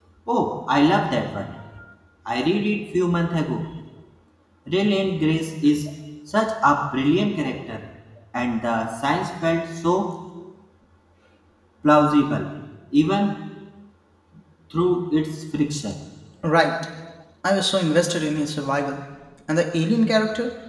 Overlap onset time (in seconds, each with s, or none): none